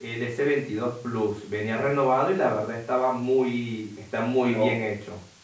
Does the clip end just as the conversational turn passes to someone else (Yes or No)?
Yes